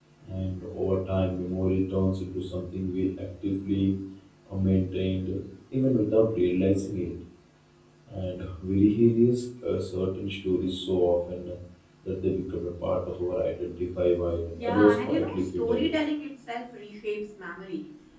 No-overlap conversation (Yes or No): No